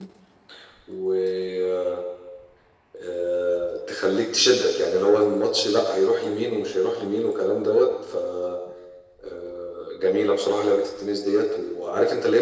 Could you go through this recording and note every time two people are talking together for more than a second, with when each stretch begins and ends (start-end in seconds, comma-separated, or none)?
none